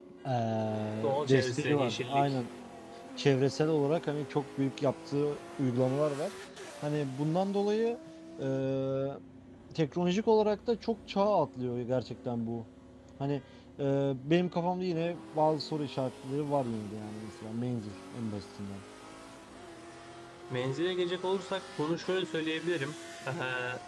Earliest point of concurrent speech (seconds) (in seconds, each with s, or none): 1.0 s